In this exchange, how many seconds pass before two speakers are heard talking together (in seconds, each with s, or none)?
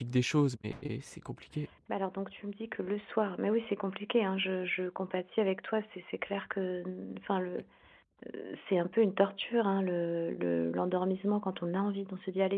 none